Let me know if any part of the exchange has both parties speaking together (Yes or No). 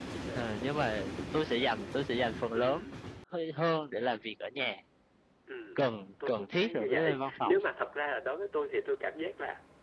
Yes